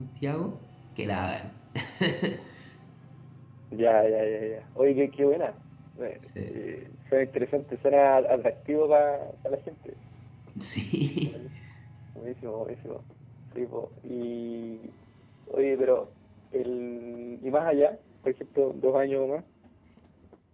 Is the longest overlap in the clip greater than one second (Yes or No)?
No